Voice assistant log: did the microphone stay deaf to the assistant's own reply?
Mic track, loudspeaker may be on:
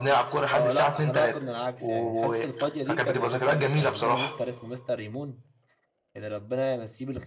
No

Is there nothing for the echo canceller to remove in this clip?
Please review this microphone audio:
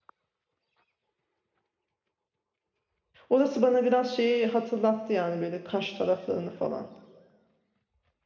Yes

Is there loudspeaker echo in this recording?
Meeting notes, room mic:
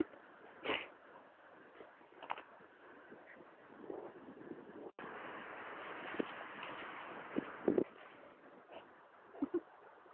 No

